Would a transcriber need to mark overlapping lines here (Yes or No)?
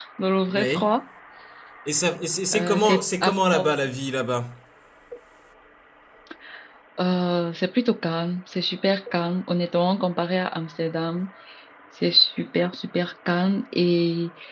Yes